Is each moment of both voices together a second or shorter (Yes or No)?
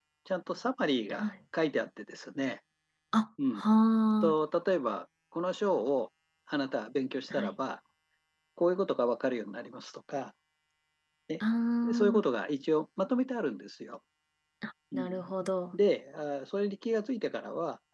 Yes